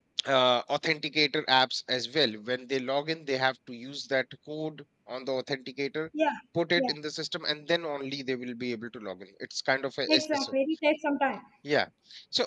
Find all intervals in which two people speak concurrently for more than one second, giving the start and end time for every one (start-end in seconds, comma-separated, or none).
none